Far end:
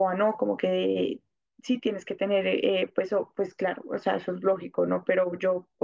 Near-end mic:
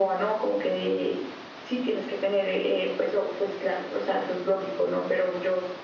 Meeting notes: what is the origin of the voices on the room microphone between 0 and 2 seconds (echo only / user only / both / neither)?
echo only